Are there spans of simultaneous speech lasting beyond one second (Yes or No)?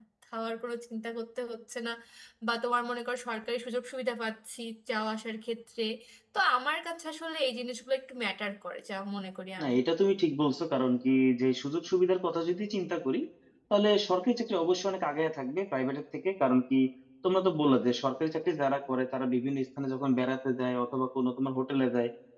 No